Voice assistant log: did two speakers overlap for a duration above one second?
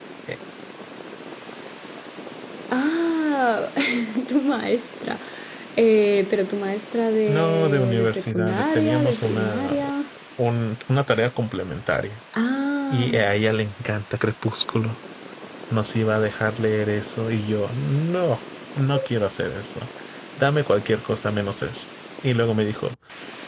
Yes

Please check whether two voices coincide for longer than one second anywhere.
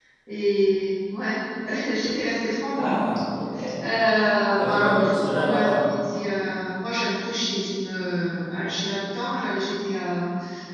Yes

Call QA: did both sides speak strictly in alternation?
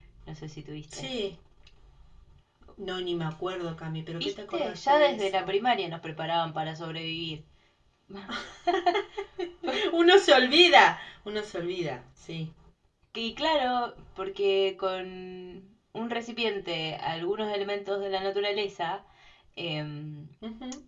No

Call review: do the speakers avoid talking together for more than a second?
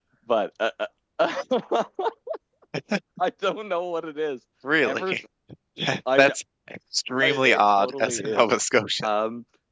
No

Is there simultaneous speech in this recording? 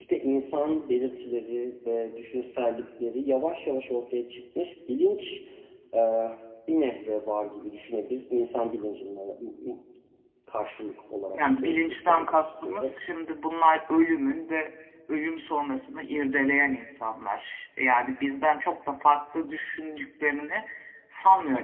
Yes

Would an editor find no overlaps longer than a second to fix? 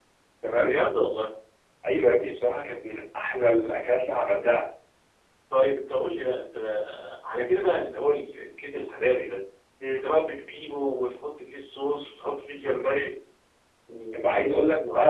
Yes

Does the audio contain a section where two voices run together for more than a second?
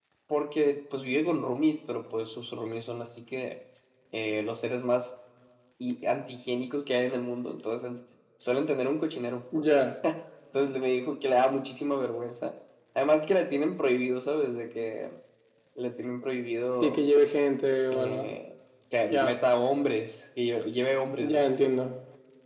No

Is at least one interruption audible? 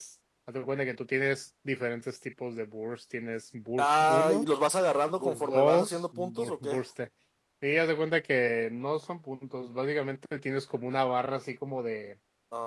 Yes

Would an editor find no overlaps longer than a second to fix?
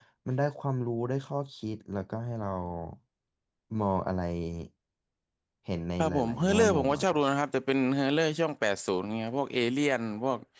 No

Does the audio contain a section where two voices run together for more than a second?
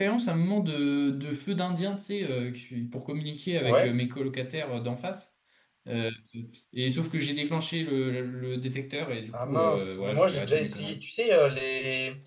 Yes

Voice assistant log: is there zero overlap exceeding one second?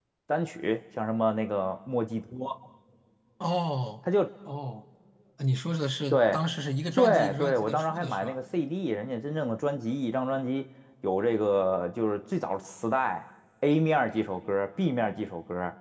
No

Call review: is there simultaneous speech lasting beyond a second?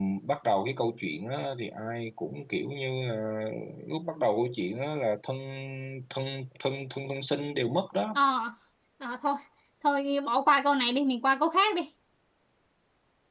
No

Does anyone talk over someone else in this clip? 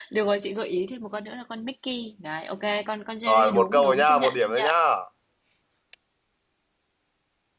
Yes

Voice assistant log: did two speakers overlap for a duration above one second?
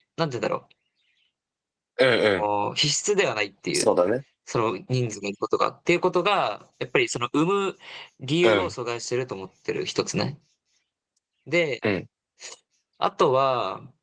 No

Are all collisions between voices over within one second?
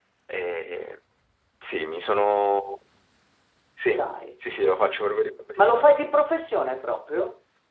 Yes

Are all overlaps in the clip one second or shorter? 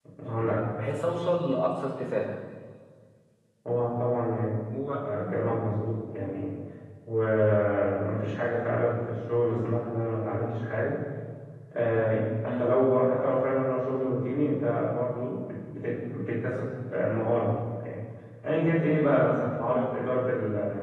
Yes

